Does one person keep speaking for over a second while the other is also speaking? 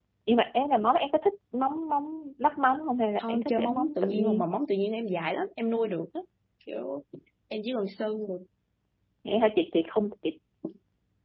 Yes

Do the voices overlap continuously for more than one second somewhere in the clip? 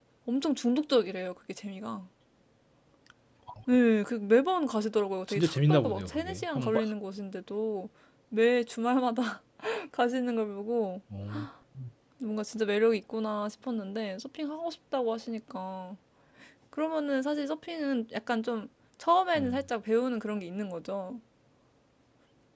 Yes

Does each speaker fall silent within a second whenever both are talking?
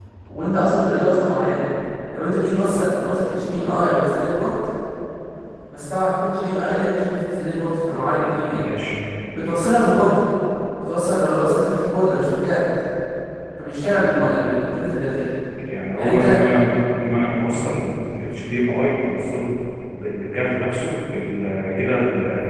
Yes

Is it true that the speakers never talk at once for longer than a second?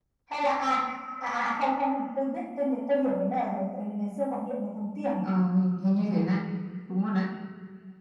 Yes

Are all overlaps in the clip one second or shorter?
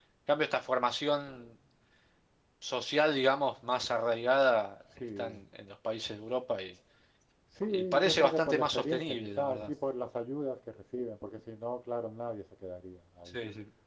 No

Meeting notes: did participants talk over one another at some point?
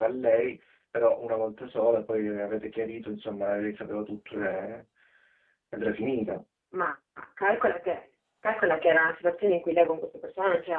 No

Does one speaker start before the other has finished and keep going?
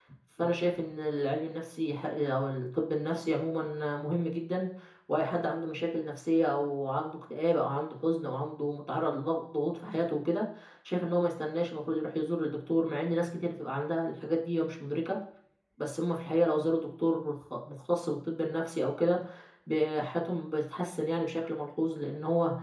No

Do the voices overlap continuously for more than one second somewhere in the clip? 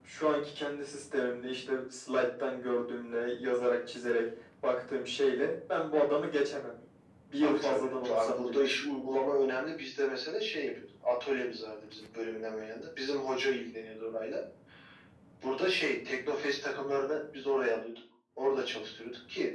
Yes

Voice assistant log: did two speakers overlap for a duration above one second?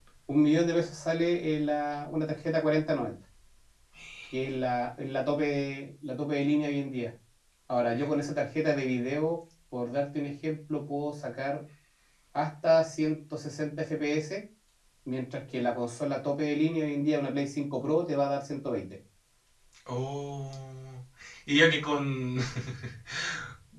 No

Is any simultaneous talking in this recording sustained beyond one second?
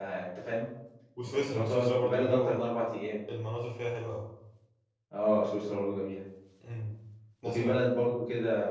Yes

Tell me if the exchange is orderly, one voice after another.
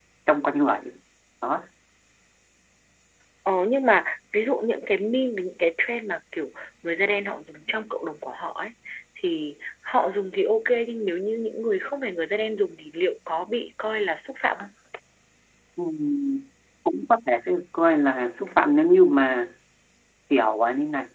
Yes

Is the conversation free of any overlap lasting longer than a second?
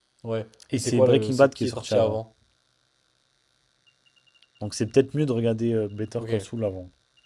No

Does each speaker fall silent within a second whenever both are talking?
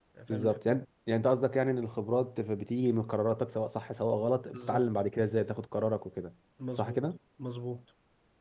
Yes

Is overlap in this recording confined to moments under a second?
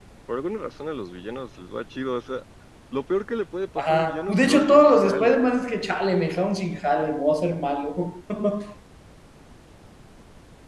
No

